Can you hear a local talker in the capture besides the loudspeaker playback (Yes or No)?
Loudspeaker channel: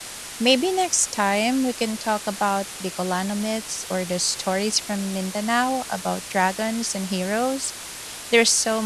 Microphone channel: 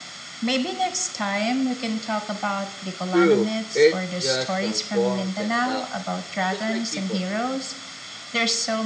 Yes